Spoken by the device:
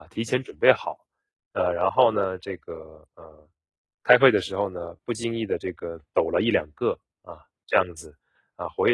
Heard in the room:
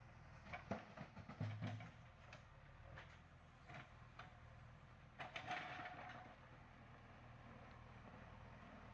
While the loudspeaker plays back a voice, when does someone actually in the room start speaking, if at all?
none

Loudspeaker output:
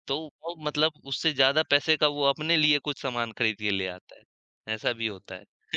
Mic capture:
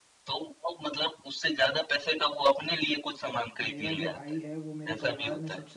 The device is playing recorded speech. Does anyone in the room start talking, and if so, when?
3.7 s

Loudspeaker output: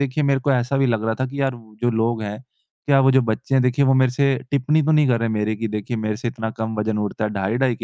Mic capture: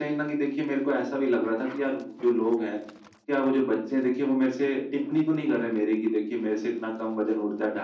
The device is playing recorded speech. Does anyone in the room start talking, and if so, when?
none

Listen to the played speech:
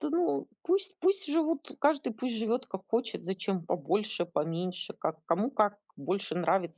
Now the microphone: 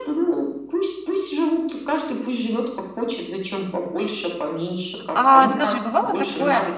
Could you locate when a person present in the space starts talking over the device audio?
5.1 s

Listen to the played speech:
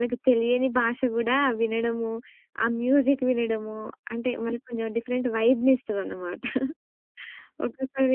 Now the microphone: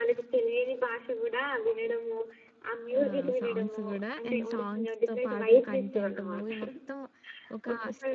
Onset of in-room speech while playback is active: 3.0 s

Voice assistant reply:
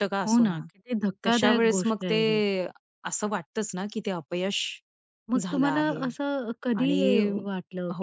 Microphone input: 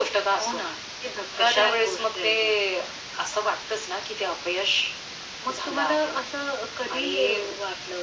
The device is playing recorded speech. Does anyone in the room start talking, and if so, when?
none

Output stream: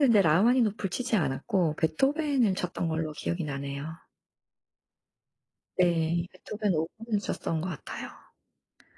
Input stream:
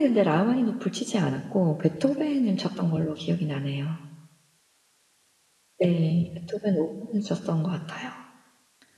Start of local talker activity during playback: none

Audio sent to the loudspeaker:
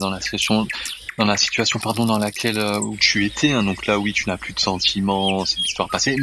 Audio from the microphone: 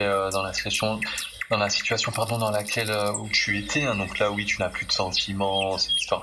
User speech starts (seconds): none

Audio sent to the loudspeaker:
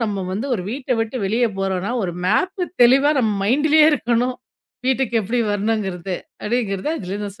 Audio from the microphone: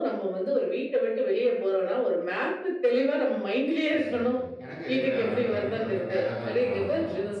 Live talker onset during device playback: 3.9 s

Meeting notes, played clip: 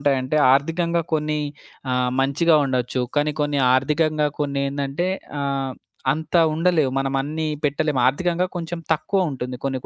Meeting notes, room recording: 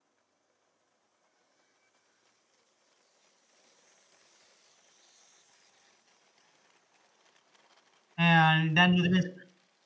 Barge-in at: 8.2 s

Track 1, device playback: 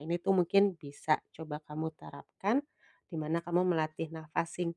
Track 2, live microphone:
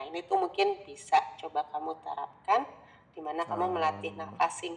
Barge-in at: 3.5 s

